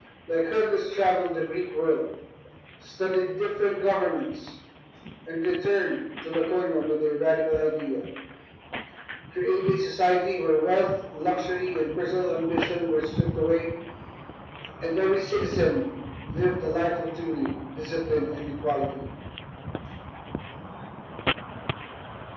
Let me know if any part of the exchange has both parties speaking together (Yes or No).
No